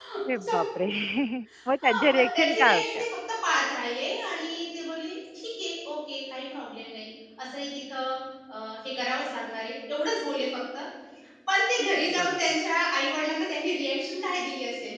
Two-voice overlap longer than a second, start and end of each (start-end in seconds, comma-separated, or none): 1.8-3.0